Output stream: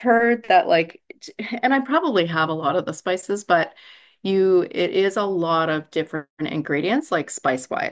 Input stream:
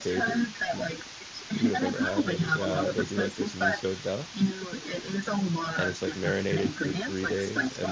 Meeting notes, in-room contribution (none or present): present